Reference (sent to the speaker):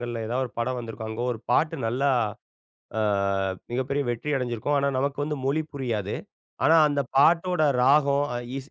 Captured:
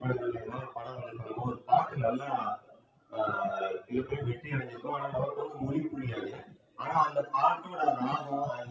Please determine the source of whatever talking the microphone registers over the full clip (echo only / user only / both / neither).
echo only